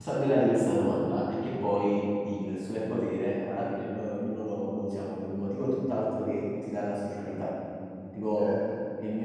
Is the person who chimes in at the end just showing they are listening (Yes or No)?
Yes